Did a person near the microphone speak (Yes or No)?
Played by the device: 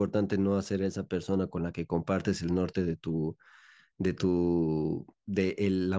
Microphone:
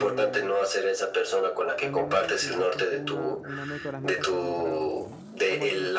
Yes